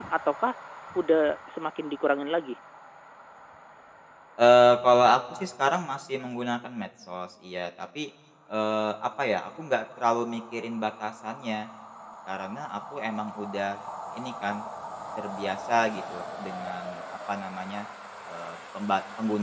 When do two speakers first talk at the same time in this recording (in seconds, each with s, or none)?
none